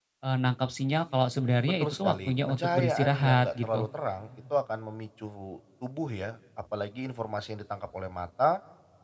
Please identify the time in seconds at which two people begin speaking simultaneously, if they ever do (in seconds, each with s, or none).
1.8 s